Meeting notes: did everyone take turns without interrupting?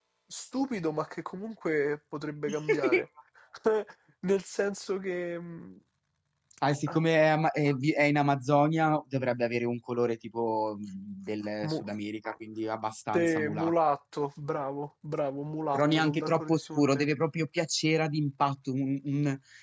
No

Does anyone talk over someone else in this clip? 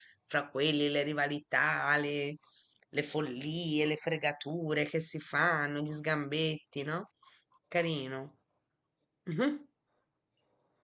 No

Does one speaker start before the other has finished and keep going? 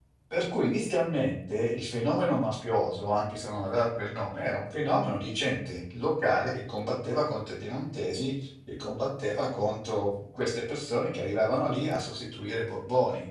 No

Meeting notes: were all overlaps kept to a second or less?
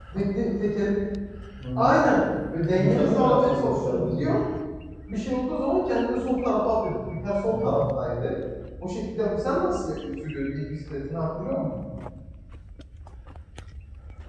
No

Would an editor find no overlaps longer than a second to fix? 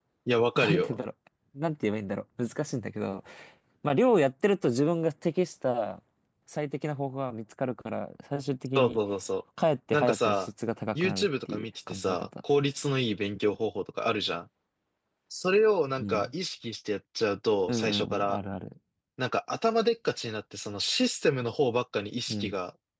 No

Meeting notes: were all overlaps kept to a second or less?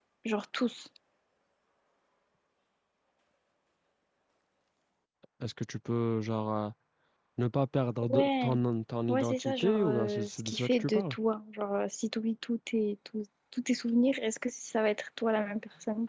No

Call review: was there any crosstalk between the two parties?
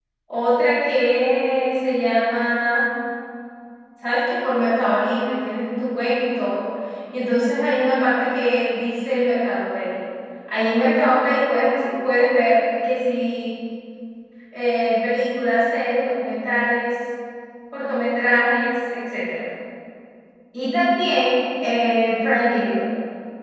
No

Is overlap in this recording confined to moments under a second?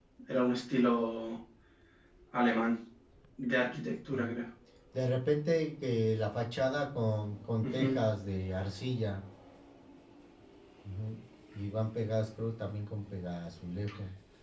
Yes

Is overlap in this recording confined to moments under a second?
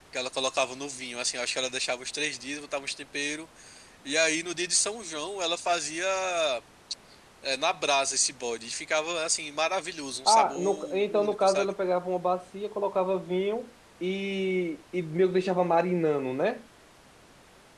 No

